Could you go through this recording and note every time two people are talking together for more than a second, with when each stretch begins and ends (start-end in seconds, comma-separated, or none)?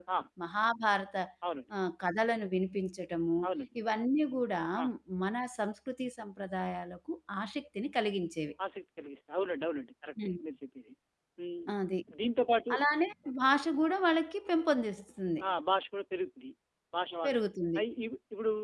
none